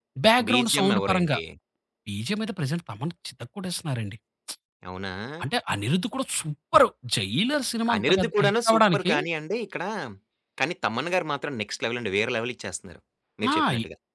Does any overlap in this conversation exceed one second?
Yes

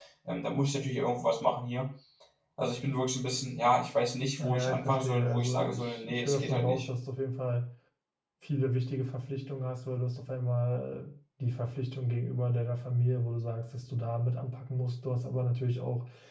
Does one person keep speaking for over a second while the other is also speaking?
Yes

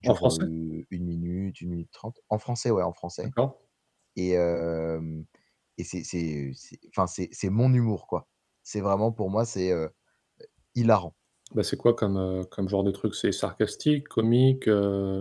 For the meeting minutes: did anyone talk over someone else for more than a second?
No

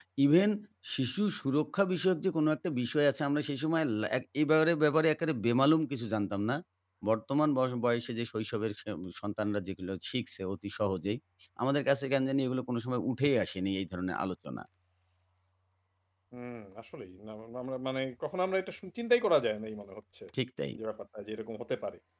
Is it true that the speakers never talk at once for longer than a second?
Yes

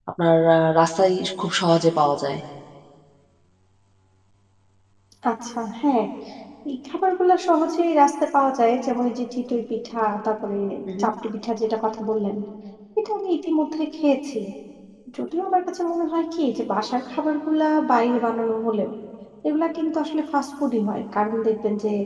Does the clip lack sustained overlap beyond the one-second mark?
Yes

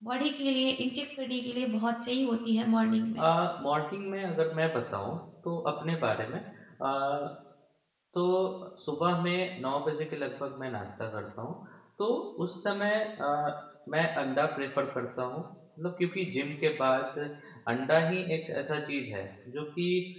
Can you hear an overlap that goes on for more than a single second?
No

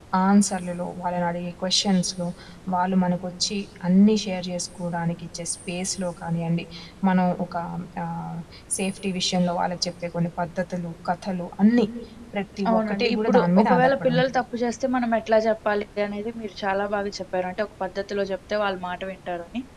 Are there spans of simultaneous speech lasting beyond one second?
Yes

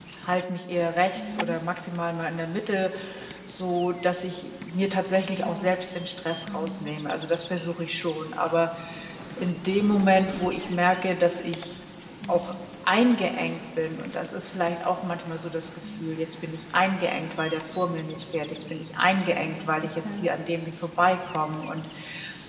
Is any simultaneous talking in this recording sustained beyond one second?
No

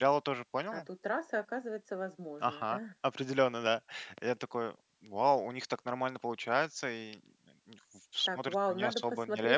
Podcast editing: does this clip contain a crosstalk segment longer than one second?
Yes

